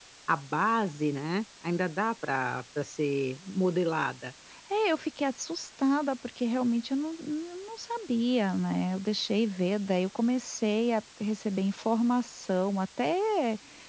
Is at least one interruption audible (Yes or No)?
No